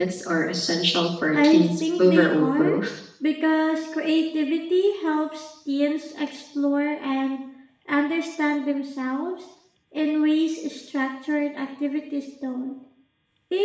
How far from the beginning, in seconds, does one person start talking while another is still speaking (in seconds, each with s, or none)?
1.3 s